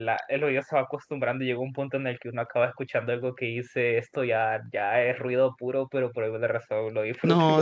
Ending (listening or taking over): taking over